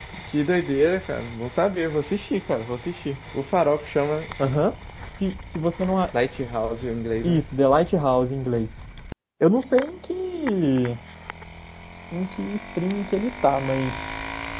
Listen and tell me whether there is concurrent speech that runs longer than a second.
No

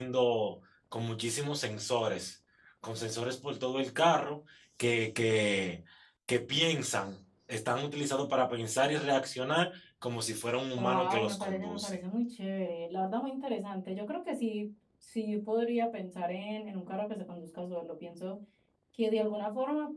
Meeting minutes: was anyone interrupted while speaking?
Yes, from 10.8 s

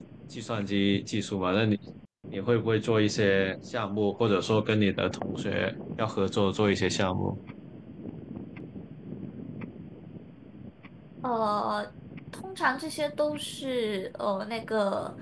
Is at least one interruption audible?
No

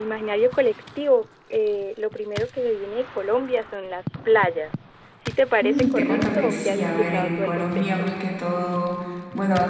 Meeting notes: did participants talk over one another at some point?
Yes, from 5.6 s

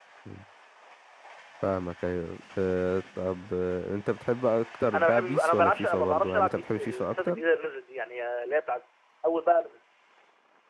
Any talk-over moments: Yes, from 4.9 s

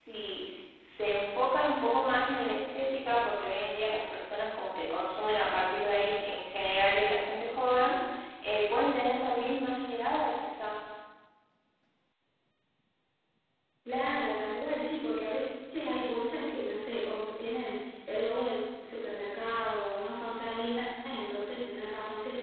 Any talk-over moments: No

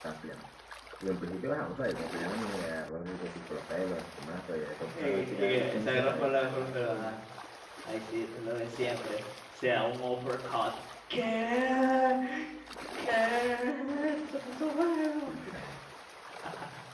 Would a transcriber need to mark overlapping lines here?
Yes, from 4.8 s

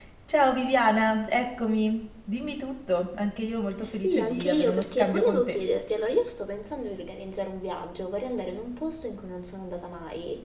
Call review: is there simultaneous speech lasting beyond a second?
Yes, from 3.8 s

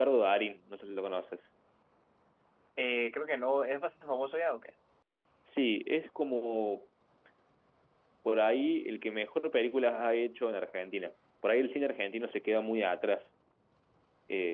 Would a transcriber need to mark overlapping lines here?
No

